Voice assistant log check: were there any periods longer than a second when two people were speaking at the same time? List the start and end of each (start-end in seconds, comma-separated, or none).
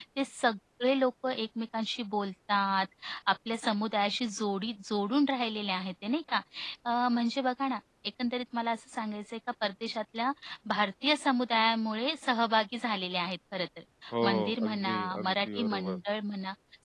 14.2-16.0